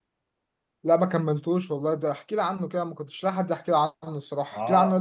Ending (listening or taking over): taking over